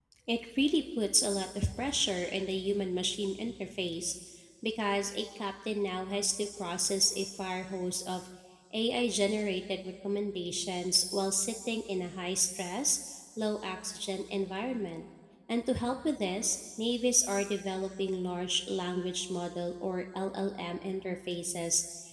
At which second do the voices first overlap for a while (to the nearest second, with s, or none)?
none